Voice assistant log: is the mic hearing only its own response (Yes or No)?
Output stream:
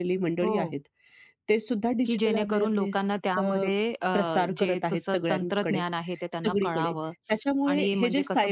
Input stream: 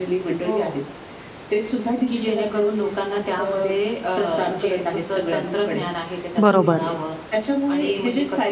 No